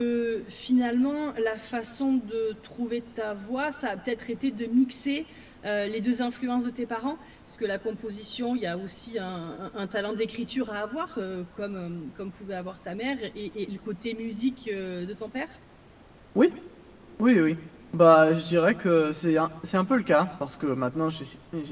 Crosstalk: none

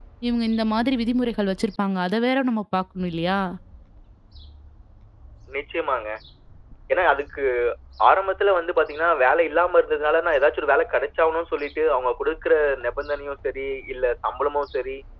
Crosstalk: none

